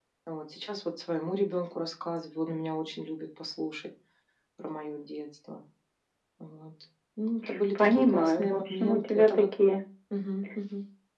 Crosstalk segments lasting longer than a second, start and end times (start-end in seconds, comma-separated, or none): 7.8-9.5